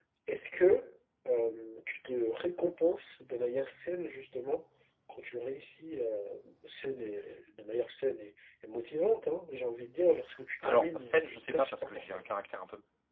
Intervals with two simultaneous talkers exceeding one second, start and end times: 10.6-12.2

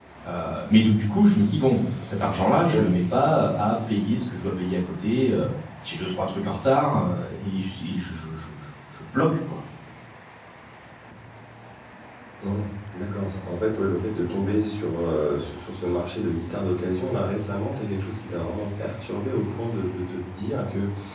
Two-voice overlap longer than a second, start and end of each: none

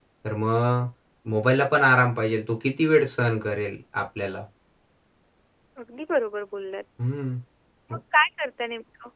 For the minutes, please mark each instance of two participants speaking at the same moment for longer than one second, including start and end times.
none

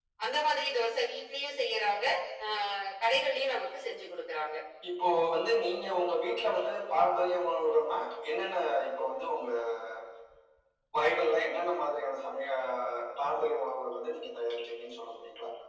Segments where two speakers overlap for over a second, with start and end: none

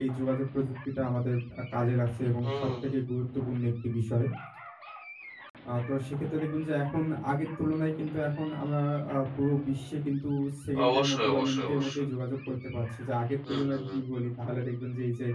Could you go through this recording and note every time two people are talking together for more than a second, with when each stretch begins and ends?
10.9-12.1

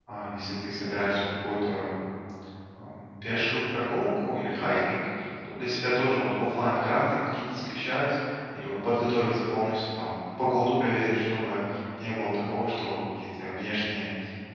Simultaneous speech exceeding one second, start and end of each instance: none

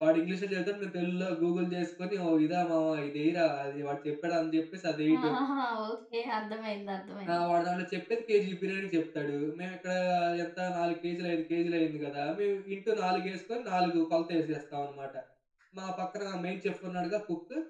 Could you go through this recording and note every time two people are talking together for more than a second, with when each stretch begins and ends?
none

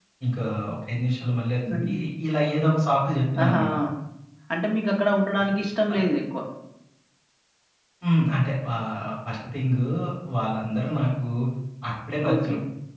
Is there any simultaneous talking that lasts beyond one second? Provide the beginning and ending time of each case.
none

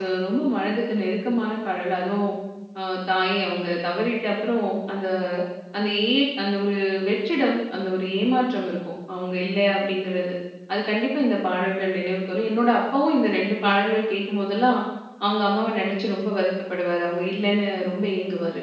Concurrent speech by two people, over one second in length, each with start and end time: none

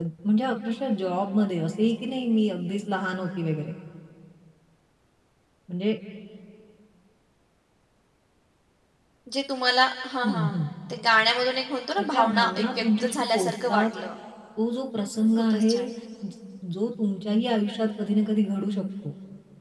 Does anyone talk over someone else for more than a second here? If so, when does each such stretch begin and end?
12.0-13.8

